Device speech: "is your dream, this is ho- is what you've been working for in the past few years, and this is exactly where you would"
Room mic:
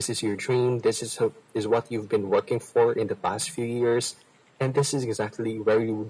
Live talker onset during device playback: none

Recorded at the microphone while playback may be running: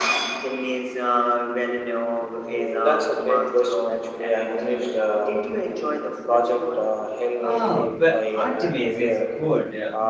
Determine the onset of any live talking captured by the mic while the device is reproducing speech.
7.4 s

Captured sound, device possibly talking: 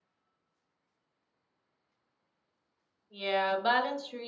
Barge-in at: 3.1 s

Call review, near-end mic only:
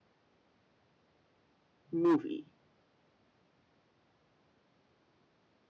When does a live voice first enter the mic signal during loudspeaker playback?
1.9 s

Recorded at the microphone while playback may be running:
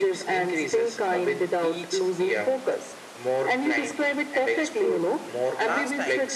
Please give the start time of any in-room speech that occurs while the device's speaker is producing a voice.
4.7 s

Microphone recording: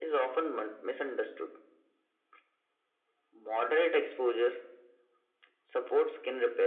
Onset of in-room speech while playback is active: none

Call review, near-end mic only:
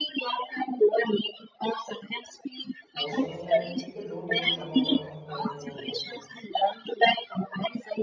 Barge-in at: 3.0 s

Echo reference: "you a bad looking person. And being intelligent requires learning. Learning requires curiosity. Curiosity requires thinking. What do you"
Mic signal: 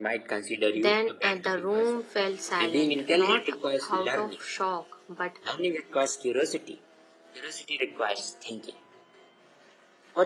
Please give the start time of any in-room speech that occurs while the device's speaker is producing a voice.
0.7 s

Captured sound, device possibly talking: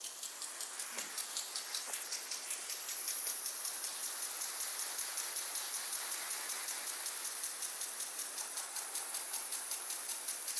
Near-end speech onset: none

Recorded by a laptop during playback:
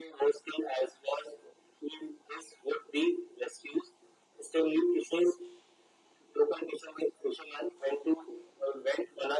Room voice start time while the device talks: none

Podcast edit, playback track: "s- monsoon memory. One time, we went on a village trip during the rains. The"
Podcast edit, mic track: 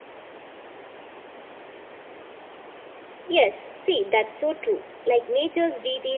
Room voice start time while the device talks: 3.3 s

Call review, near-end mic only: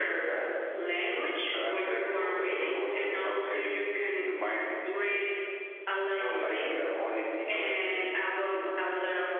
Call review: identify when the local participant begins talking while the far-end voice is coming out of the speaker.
none

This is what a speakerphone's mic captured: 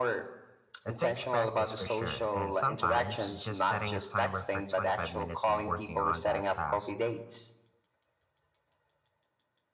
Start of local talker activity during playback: 0.9 s

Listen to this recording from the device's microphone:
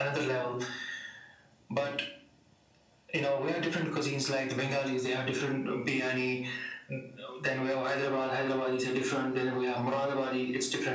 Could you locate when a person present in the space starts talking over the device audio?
none

